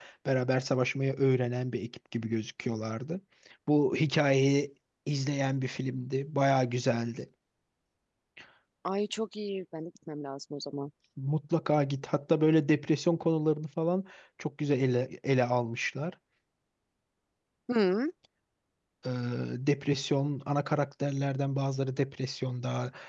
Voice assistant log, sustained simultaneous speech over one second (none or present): none